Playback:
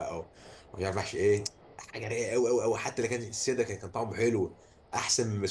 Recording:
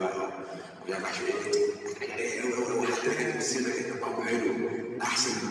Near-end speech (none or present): present